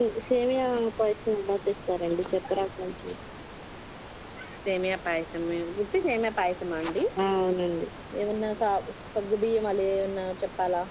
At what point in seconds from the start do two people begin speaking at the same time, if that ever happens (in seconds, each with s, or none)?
none